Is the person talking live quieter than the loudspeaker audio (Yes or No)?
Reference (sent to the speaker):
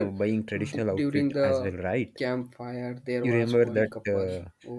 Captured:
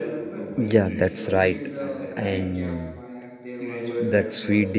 No